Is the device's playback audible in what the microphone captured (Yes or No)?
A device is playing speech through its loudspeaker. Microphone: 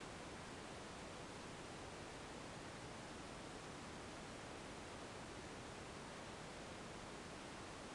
No